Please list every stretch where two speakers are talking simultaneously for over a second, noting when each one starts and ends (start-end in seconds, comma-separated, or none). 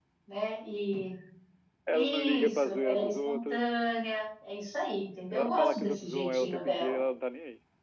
1.9-3.6, 5.3-7.0